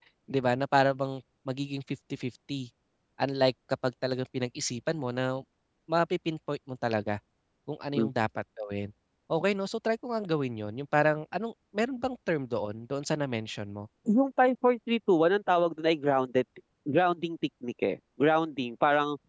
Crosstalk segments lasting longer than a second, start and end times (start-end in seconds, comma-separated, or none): none